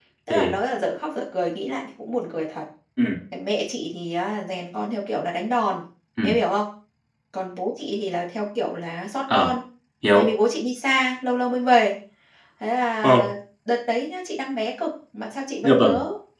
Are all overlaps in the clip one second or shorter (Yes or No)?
Yes